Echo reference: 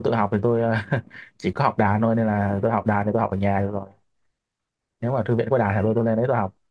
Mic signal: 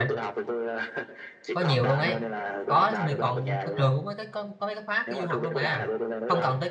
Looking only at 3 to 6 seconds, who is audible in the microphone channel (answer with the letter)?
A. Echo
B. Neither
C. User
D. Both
D